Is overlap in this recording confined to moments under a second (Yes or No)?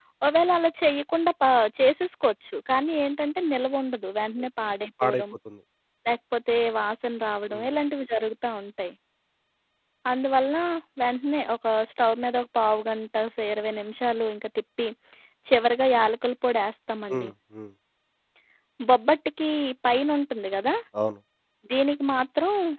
Yes